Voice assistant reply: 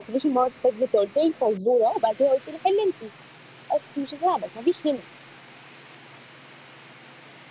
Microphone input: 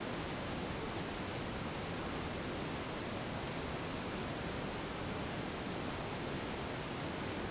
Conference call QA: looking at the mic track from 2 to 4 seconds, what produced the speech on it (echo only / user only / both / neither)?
neither